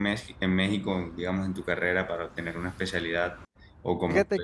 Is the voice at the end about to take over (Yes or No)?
Yes